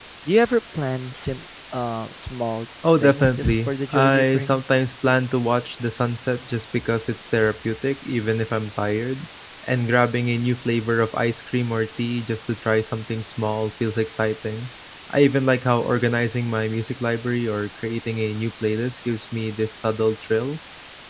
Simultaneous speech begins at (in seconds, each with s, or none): 2.8 s